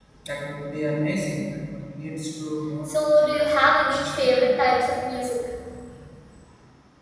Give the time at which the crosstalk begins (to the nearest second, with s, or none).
3 s